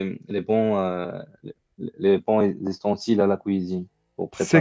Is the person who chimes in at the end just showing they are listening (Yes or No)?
No